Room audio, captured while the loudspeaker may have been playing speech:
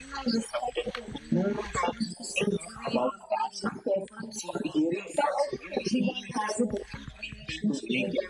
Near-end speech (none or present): none